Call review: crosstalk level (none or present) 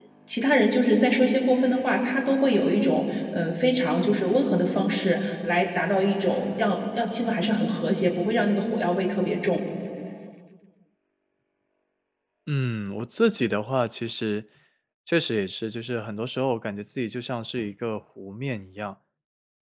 none